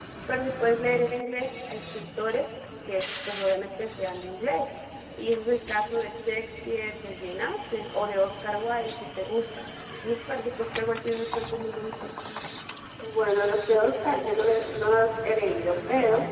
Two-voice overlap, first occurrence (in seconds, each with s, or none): none